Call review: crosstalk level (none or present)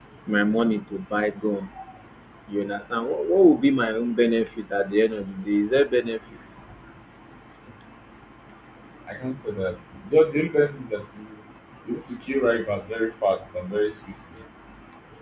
none